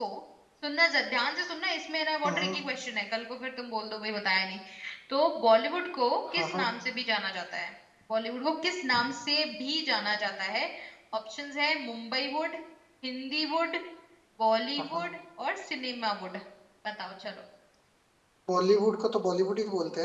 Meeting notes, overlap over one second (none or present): none